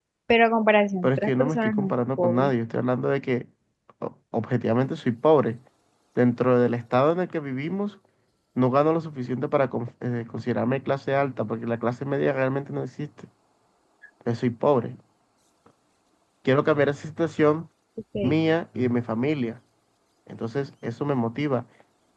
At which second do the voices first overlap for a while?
1 s

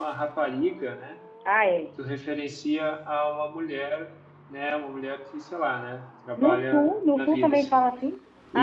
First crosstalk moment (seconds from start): 6 s

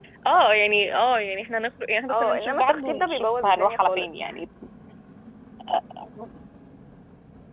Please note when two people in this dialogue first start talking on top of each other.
2 s

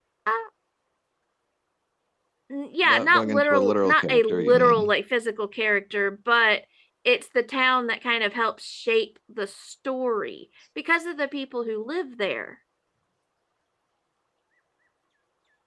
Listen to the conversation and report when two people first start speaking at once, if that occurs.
3 s

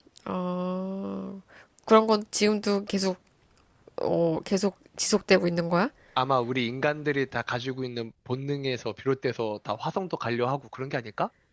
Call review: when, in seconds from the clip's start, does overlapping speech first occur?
none

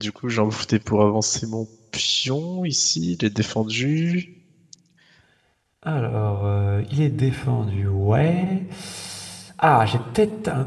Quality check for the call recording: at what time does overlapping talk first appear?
none

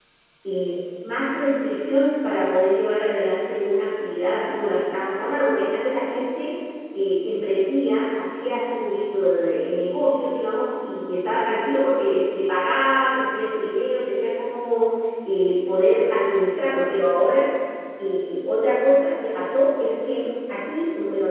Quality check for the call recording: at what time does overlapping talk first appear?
none

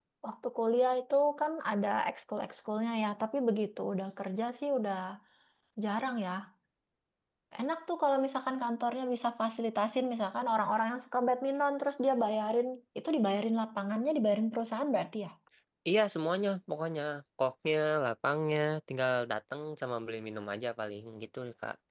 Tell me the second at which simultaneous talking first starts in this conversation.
none

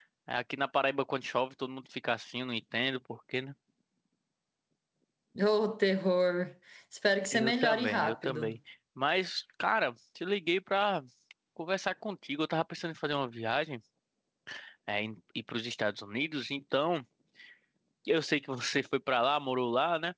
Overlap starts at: 7 s

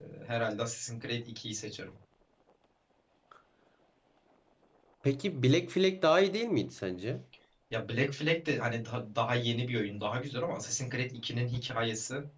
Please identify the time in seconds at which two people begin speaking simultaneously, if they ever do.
none

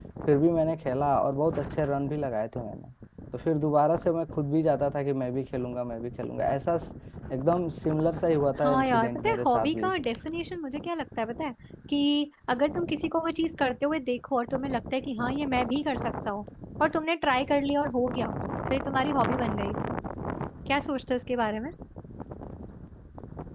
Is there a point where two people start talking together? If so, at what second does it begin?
9 s

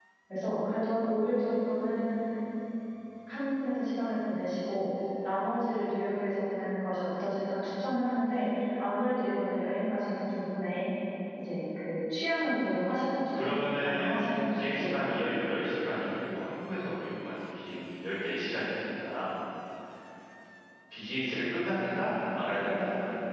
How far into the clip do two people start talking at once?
13 s

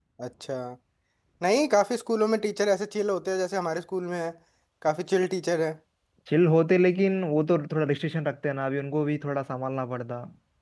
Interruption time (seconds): none

